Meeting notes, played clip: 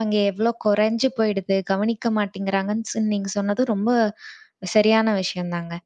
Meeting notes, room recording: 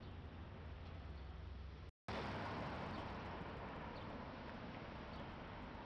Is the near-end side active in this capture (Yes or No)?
No